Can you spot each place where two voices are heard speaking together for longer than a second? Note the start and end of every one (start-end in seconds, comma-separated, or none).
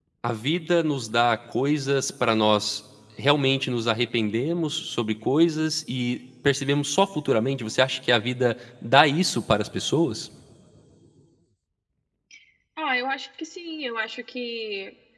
none